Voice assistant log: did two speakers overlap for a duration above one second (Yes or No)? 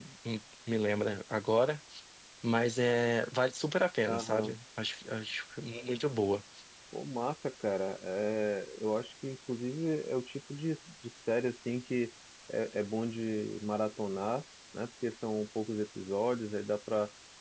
No